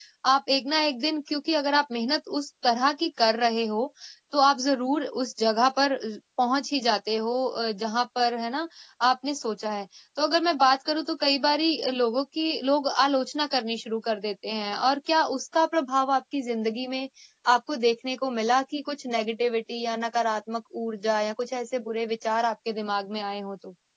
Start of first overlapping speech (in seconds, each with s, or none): none